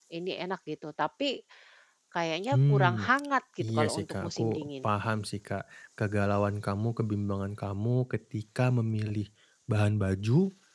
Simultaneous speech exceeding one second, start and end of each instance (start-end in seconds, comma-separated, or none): 3.6-4.9